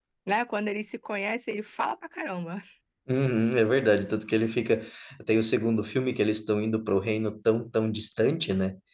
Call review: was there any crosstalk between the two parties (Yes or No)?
No